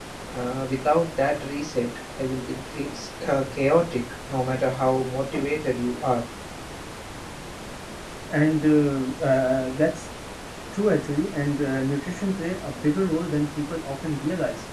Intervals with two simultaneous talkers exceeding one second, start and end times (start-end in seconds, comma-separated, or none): none